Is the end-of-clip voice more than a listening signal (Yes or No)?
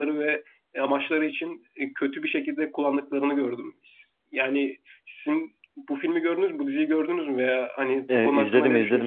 Yes